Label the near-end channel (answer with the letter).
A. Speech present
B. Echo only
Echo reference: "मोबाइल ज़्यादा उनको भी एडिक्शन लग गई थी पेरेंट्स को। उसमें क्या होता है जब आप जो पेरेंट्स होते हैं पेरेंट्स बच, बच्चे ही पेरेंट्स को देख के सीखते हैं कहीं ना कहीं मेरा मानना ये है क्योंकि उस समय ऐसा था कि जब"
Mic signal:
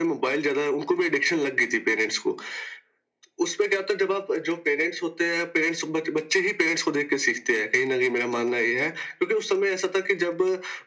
B